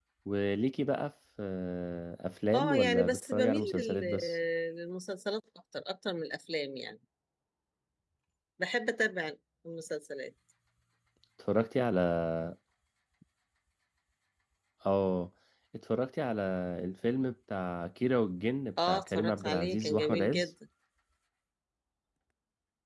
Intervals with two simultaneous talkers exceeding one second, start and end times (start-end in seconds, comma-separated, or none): 2.5-4.3, 18.9-20.5